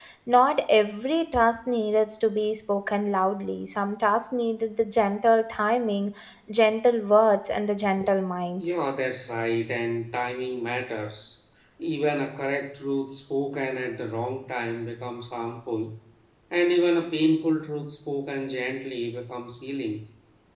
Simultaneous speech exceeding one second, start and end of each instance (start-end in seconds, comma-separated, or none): none